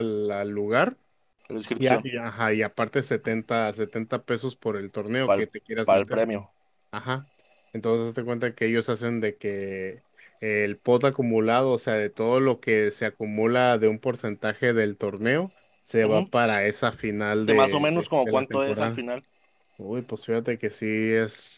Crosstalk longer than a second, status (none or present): present